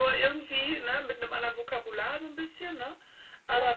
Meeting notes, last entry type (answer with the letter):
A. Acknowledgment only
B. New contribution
A